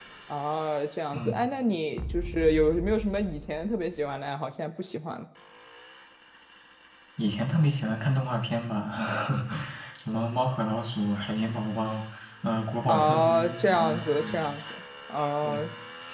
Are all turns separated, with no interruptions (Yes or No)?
No